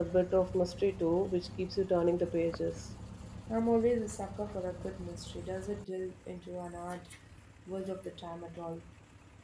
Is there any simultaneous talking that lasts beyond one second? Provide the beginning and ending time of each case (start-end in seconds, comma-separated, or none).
none